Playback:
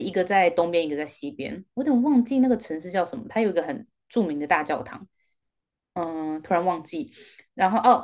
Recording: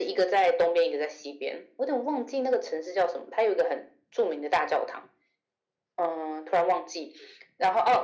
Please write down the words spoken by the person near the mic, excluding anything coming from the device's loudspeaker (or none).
none